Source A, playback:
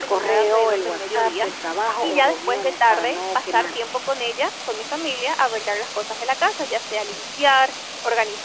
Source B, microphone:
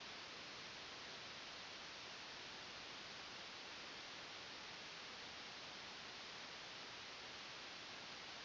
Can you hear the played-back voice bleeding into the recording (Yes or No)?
No